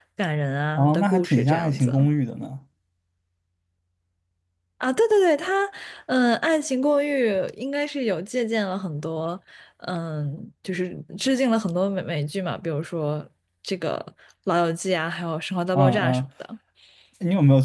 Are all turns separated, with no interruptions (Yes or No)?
No